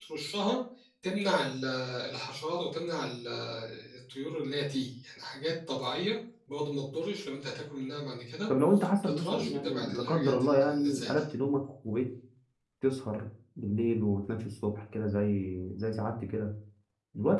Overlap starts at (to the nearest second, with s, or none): 9 s